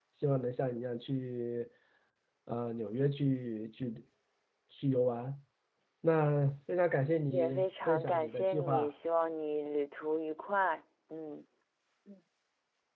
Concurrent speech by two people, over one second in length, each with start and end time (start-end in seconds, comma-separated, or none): 7.3-8.9